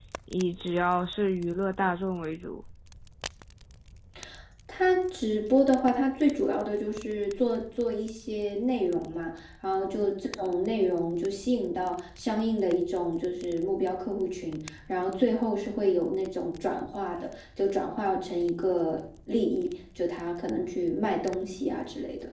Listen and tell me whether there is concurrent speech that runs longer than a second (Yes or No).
No